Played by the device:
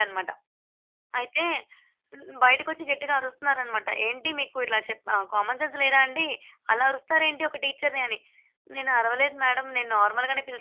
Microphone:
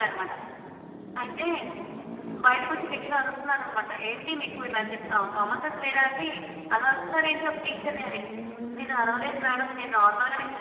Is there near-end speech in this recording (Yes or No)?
No